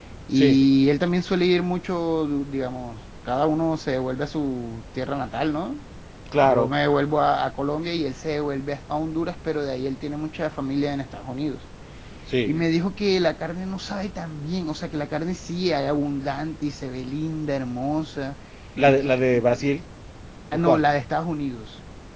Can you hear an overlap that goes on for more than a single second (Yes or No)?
No